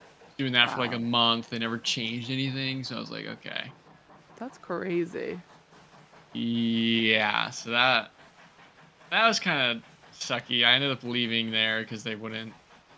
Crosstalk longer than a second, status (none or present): none